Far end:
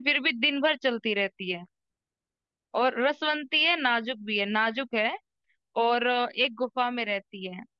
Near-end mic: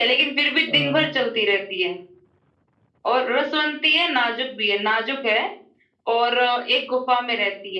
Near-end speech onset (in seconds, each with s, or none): 0.7 s